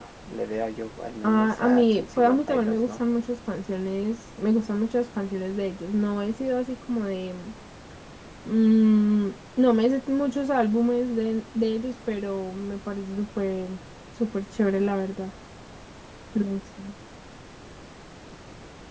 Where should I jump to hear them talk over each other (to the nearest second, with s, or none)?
1 s